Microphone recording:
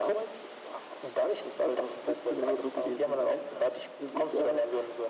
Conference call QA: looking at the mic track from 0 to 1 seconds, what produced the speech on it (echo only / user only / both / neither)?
echo only